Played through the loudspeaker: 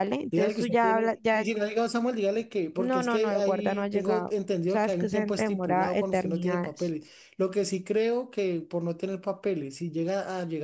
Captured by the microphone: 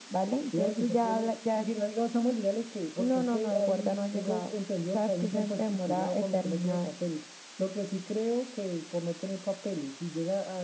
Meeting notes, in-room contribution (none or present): none